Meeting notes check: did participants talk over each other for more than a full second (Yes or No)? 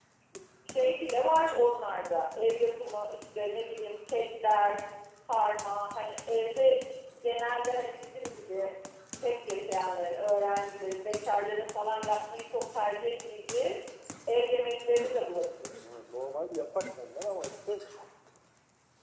No